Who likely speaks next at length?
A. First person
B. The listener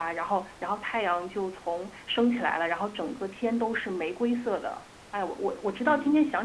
B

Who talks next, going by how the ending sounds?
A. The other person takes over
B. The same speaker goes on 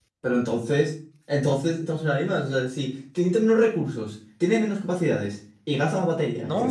A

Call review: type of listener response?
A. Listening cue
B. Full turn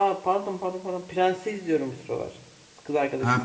B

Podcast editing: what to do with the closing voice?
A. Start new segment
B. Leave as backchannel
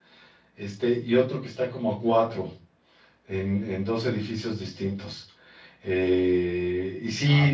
B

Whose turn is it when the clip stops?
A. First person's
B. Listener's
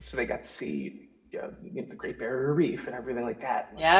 B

